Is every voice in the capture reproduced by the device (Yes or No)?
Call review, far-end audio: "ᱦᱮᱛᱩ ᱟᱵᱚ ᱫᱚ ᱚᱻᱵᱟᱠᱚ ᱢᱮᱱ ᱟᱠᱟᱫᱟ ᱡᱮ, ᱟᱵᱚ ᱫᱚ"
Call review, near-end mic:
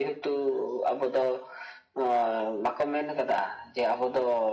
Yes